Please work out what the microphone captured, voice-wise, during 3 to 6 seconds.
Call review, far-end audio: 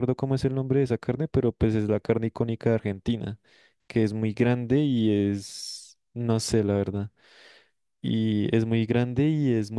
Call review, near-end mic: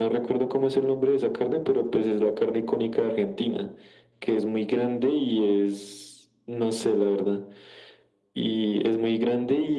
echo only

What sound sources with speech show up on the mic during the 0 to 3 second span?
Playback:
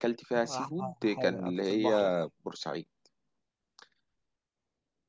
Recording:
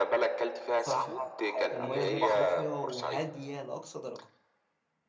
both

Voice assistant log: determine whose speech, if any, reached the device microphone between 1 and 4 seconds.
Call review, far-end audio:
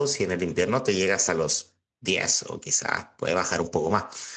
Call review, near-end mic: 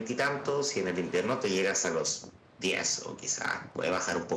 echo only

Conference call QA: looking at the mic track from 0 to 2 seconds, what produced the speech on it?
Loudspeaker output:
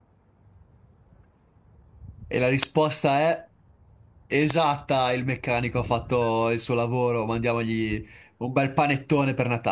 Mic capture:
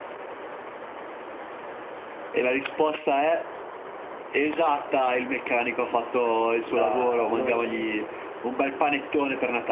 neither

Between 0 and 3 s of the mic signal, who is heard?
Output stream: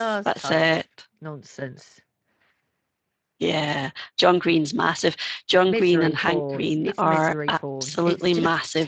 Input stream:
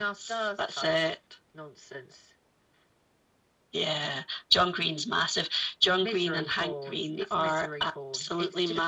echo only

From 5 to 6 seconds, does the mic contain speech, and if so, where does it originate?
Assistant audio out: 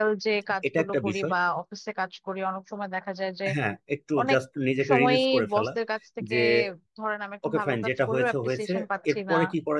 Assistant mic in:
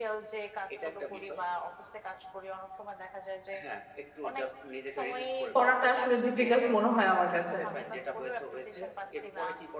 both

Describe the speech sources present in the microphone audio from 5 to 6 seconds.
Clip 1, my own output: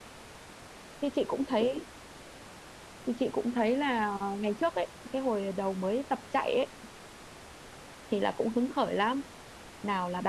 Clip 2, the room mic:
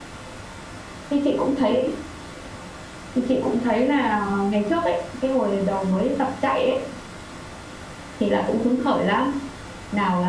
echo only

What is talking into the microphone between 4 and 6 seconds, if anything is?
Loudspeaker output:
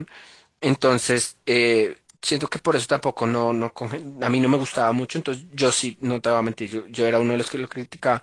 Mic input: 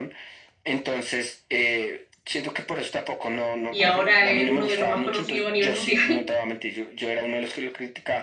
both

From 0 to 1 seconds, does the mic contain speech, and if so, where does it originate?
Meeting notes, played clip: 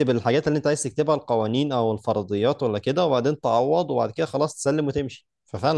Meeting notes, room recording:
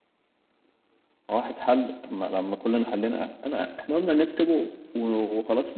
neither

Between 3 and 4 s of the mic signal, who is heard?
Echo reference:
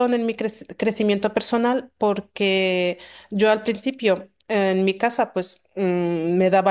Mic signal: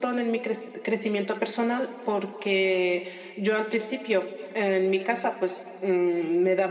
echo only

